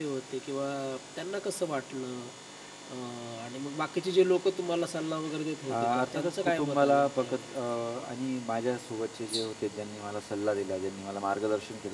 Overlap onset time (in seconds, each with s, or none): 5.7 s